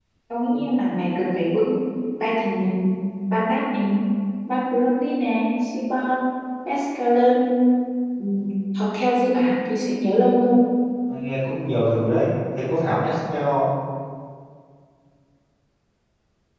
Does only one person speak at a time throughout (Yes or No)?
Yes